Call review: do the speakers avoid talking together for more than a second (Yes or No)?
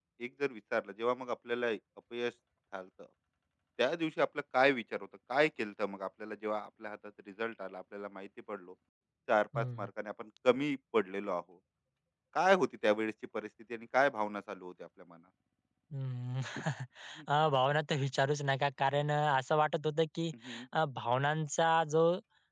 Yes